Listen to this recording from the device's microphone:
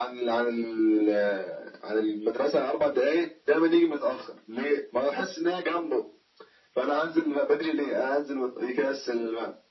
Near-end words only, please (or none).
none